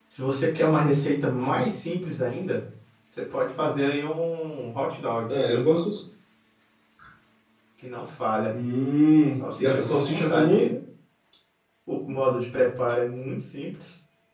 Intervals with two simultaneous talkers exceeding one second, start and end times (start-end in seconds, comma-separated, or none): 9.4-10.7